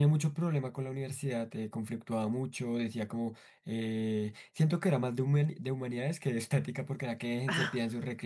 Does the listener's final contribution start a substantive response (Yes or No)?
No